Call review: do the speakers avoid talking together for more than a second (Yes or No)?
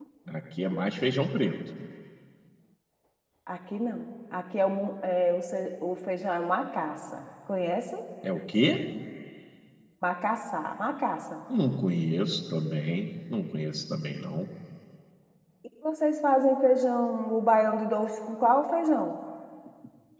Yes